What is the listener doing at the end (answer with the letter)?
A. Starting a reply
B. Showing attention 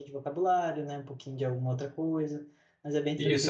A